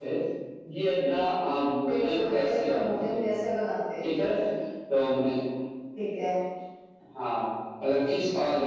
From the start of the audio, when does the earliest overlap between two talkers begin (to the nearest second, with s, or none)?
2 s